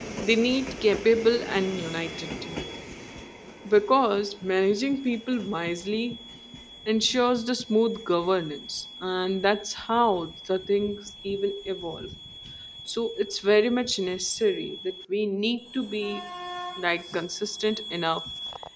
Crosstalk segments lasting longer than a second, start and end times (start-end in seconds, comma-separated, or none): none